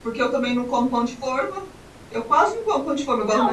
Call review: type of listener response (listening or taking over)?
taking over